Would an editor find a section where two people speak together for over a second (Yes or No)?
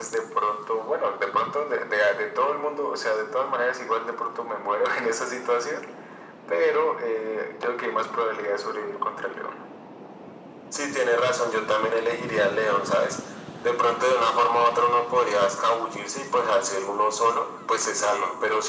No